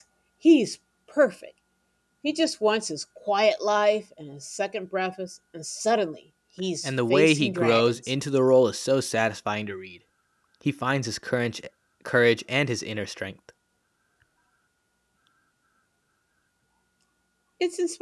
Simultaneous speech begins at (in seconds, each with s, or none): 6.8 s